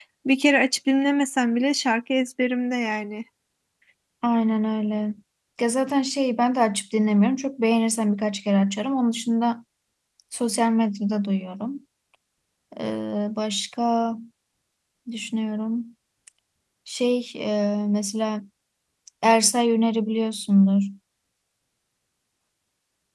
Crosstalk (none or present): none